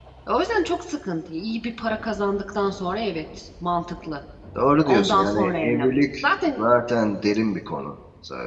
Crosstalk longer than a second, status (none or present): present